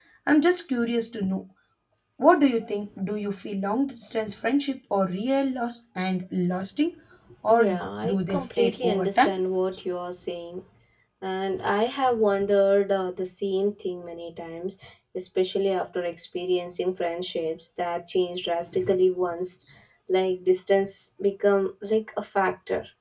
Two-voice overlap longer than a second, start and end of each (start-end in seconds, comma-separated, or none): 7.5-9.3